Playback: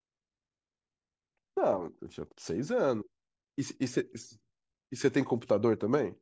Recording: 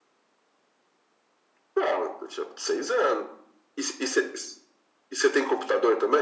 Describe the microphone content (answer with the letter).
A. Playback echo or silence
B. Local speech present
A